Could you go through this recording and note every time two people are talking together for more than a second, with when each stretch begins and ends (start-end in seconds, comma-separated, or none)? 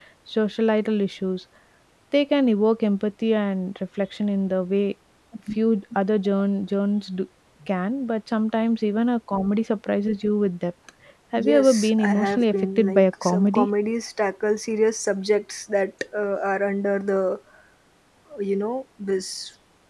11.4-13.7